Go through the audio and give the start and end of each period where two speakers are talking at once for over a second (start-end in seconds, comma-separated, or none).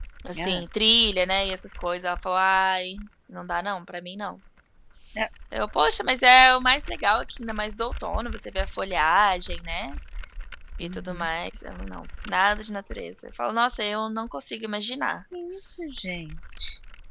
none